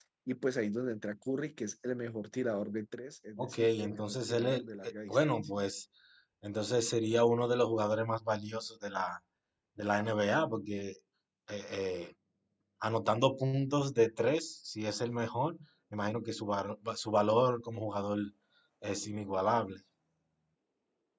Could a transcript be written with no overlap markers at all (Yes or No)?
No